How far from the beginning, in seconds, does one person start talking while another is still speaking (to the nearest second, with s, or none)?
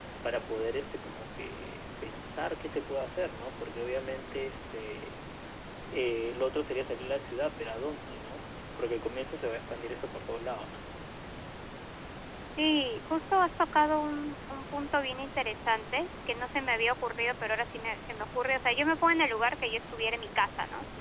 none